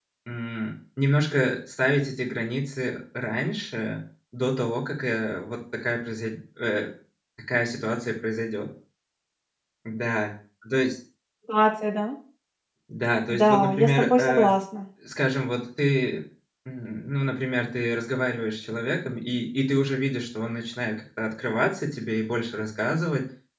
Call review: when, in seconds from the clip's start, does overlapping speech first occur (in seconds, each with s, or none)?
13.3 s